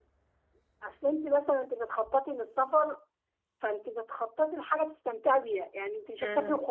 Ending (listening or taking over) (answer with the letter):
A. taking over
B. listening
B